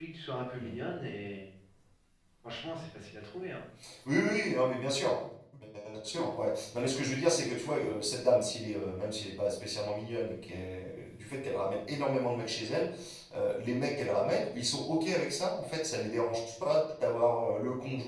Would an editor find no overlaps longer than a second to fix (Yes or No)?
Yes